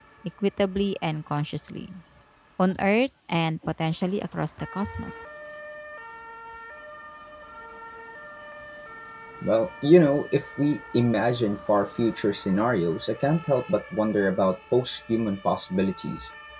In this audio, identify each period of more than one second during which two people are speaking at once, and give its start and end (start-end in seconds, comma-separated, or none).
none